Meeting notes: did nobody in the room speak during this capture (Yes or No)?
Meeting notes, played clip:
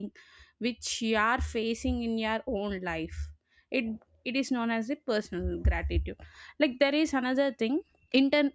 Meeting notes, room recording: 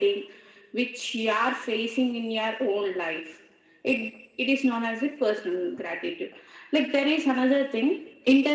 Yes